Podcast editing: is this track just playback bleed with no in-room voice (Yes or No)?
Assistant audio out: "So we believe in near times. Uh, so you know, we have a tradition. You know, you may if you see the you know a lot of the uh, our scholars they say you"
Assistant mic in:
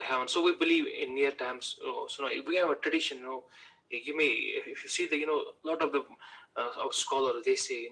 Yes